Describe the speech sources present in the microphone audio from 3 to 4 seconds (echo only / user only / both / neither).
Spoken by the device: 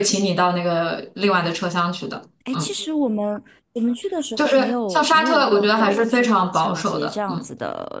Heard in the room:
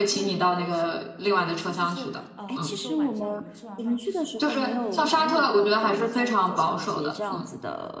both